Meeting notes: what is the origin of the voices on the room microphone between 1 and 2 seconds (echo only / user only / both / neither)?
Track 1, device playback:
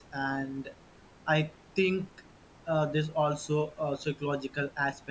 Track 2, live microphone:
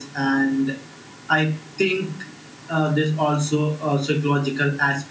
echo only